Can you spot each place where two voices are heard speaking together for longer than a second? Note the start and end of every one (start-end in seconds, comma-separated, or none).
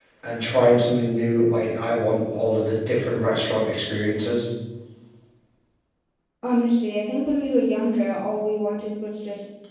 none